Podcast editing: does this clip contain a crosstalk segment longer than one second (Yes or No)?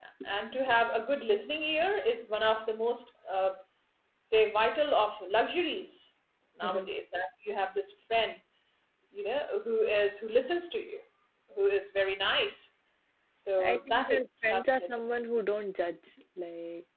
Yes